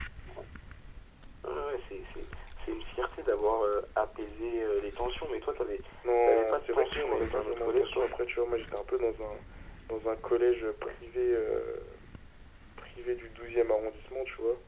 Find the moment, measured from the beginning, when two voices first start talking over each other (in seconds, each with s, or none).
6.3 s